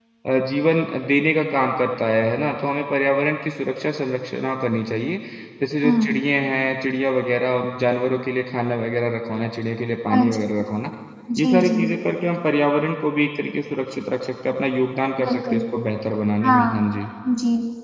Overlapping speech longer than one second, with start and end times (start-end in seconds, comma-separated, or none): none